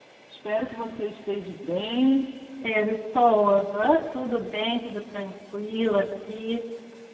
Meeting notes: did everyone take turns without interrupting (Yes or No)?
Yes